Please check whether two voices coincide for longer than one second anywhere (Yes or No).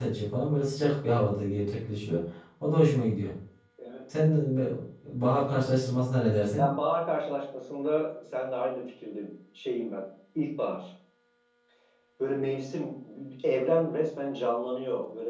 No